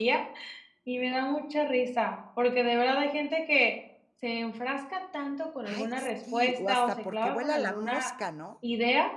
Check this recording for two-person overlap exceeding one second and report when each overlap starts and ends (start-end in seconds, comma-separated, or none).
5.6-8.1